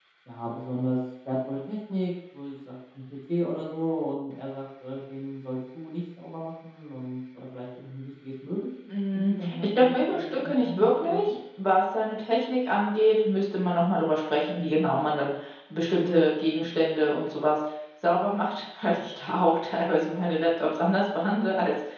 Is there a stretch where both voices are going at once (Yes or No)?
Yes